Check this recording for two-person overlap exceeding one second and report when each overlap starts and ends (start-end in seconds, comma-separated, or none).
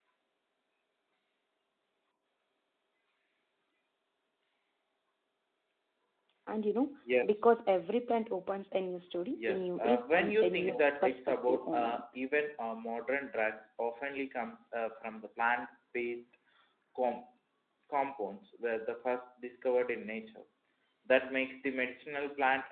9.3-12.0